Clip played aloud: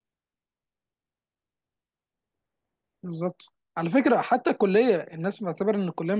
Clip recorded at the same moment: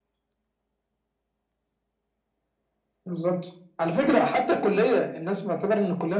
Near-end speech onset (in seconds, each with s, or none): none